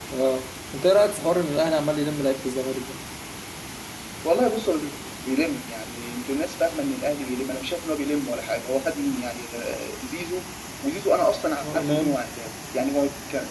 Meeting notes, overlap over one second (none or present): none